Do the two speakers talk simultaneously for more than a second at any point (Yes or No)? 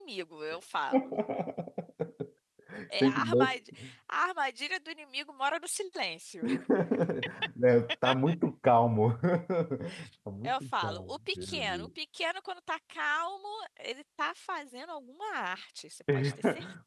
Yes